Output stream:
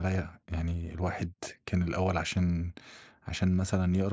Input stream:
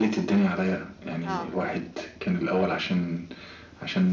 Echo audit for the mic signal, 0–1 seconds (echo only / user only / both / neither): echo only